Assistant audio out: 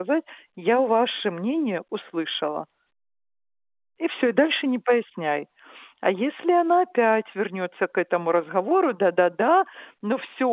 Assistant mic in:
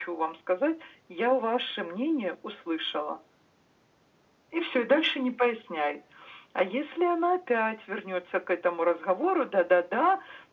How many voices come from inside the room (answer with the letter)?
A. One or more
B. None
B